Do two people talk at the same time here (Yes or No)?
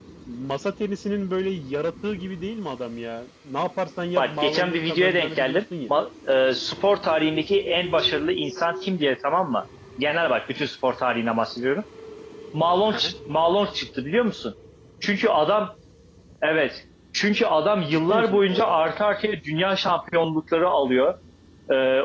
Yes